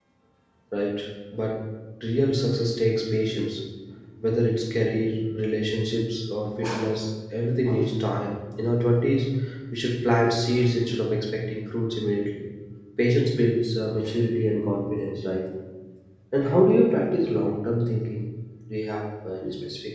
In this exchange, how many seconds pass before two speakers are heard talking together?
none

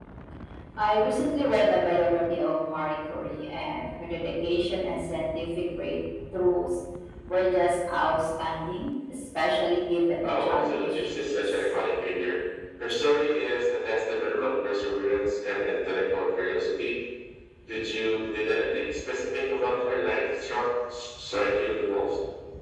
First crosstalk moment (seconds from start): 10.2 s

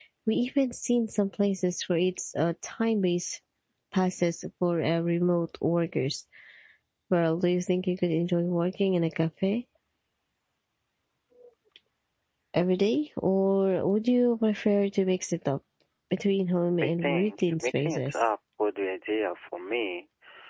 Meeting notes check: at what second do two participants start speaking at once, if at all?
16.8 s

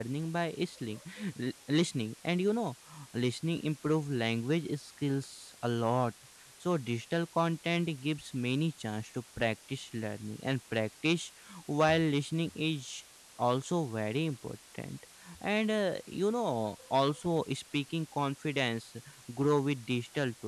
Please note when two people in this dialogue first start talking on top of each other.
none

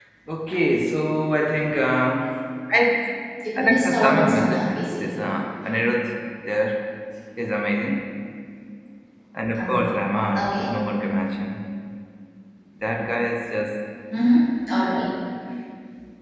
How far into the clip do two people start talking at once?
3.6 s

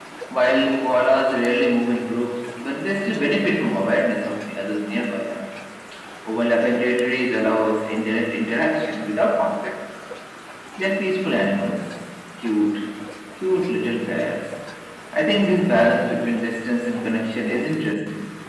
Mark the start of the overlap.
none

